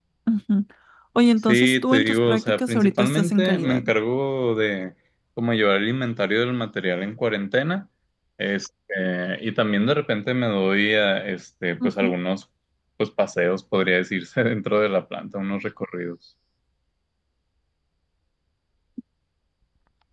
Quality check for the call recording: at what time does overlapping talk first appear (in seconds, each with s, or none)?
1.5 s